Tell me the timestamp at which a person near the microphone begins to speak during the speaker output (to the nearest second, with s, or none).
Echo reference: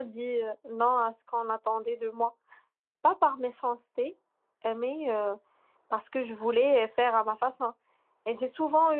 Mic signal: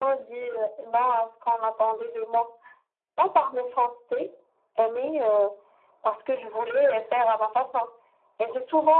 none